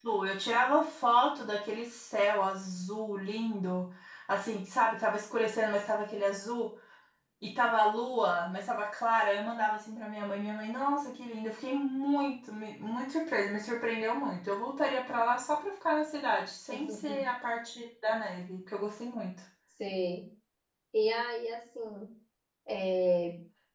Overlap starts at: none

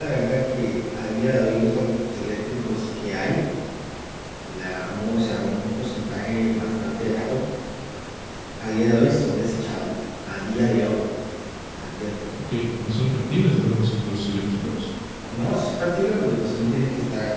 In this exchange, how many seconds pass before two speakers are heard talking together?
none

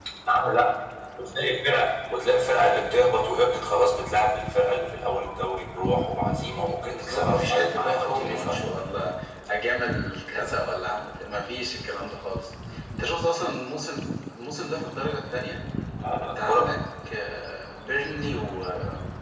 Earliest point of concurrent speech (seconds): 7 s

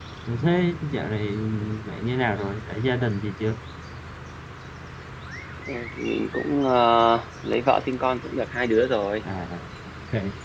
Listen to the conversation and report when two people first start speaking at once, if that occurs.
none

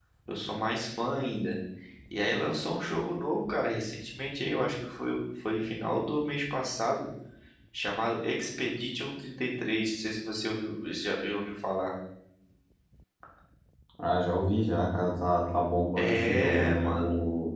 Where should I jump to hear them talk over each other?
16 s

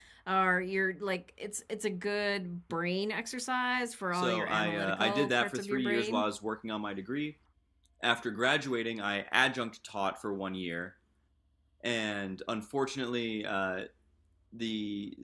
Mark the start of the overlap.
4 s

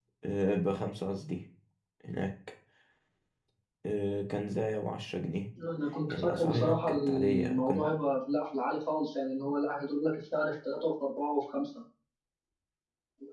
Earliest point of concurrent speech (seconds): 6 s

